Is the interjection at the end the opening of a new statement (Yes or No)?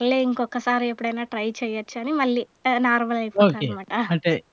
Yes